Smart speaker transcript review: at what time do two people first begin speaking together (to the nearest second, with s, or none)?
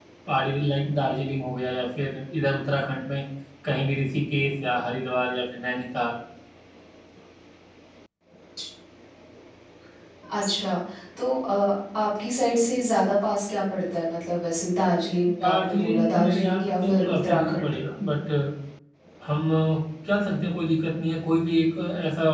15 s